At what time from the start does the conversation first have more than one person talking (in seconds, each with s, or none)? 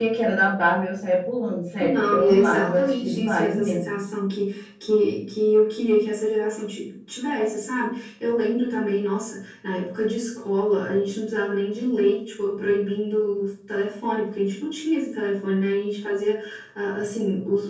1.8 s